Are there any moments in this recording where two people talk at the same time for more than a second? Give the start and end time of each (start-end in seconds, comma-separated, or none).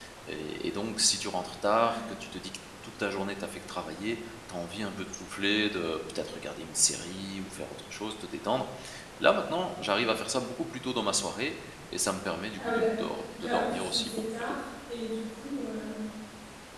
12.6-14.6